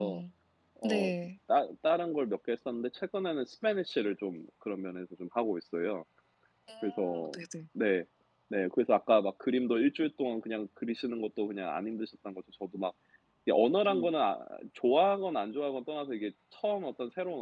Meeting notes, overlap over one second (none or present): none